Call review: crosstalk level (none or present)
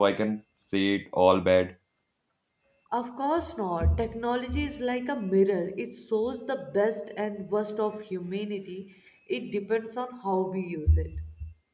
none